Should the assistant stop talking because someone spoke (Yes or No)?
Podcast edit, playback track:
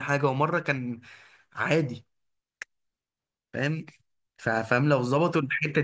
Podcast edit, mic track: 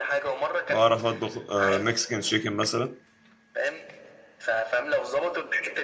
Yes